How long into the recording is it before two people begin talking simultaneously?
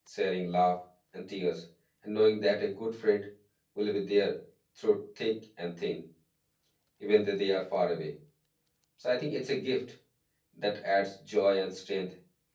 none

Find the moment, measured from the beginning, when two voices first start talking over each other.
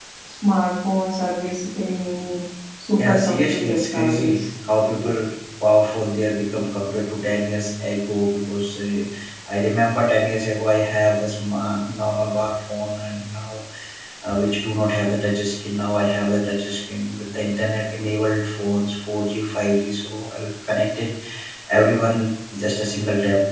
2.9 s

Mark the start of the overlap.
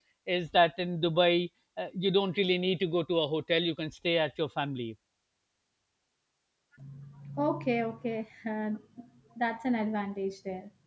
none

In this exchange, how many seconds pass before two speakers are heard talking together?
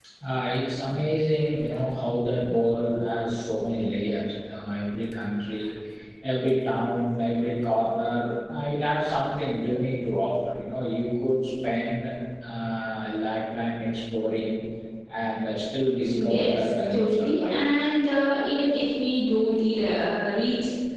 16.1 s

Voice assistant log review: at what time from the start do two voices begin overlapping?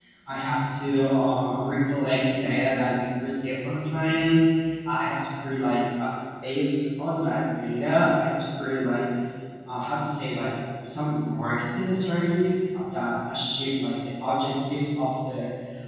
none

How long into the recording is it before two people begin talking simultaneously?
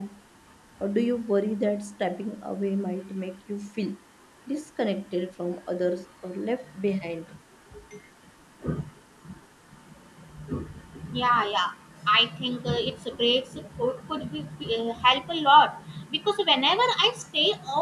none

